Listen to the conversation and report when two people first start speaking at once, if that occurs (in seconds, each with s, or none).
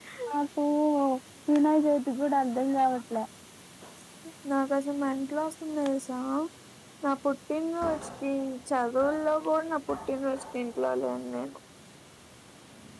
none